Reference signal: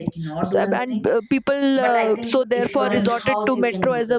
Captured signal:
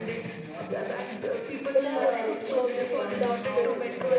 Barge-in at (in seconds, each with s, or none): 1.7 s